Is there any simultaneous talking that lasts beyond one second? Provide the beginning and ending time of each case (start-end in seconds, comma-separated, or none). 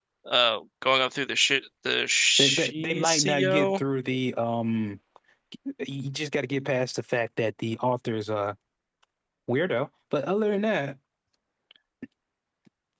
2.4-3.8